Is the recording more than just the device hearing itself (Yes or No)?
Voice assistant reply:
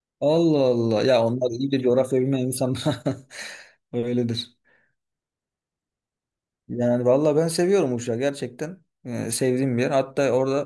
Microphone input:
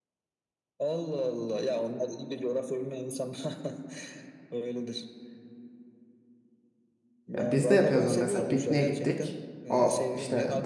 Yes